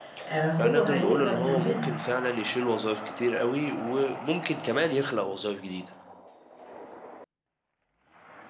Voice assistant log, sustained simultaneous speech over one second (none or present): present